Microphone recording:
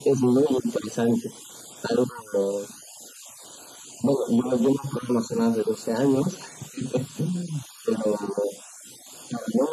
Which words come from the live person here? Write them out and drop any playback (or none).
none